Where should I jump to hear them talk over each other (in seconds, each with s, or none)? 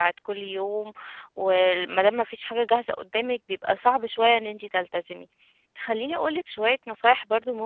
none